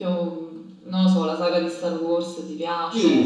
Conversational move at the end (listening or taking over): taking over